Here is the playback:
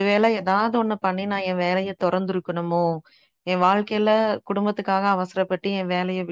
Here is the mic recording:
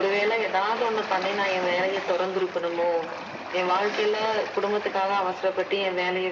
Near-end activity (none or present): none